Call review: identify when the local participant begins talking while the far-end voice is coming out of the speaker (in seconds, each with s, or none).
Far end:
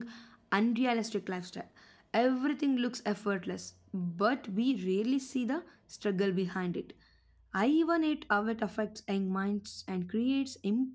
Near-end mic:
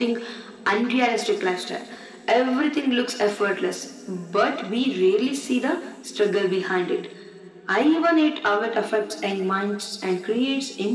none